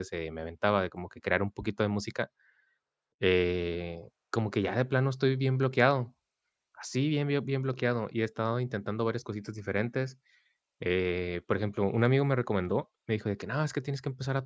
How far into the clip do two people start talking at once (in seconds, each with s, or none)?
none